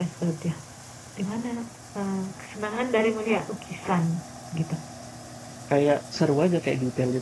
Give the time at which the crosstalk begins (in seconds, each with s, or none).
none